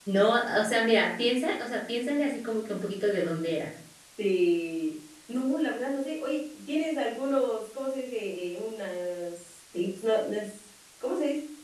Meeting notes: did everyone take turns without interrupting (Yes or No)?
Yes